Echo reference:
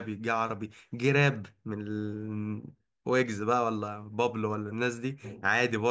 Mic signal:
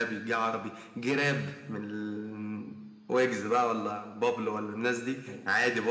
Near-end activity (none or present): none